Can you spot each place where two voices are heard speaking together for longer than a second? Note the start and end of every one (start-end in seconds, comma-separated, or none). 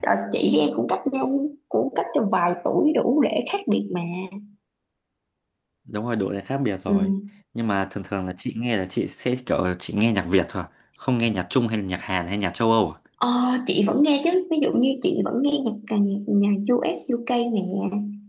none